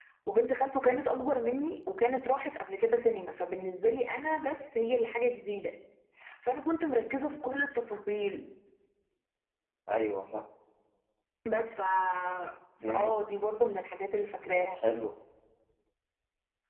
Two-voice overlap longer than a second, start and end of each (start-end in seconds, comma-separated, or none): none